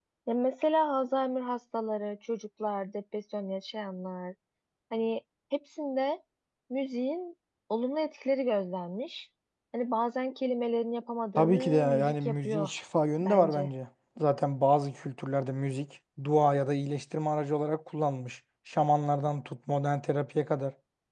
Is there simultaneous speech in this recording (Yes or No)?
Yes